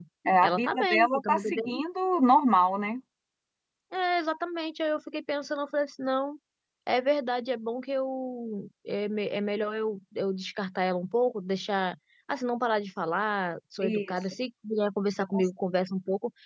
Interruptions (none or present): present